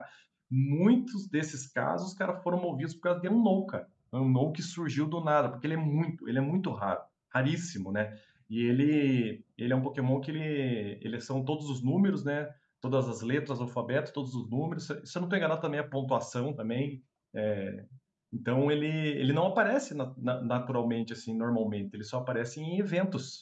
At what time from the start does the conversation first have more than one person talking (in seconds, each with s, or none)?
none